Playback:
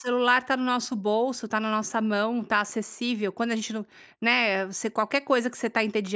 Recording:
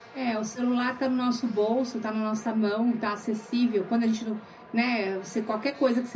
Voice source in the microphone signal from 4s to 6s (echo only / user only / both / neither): echo only